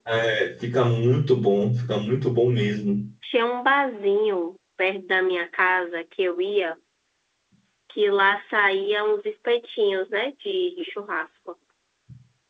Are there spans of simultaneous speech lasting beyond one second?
No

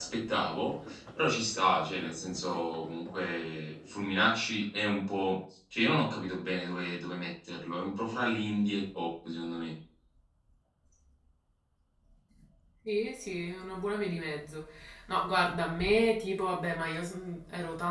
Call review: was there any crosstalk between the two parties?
No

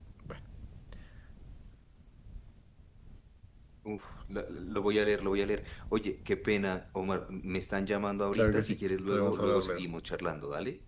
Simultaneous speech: Yes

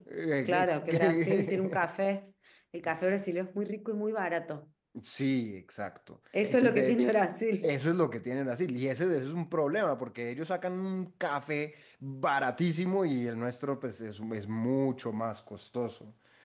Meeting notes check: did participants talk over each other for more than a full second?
Yes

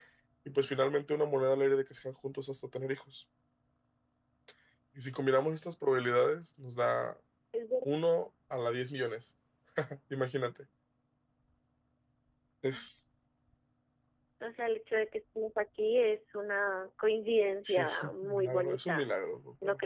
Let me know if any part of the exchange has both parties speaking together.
Yes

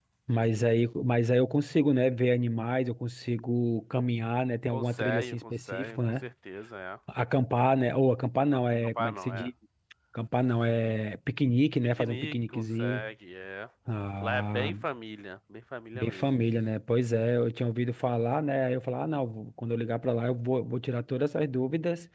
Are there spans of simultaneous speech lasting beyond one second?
Yes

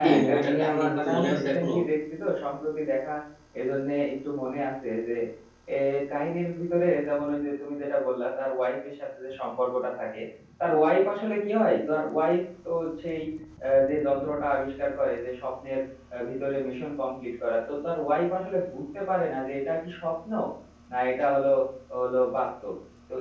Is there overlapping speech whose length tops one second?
Yes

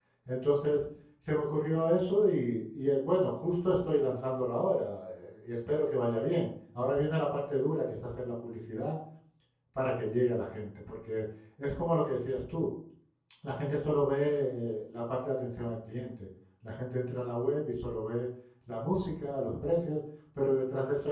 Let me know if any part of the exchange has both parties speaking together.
No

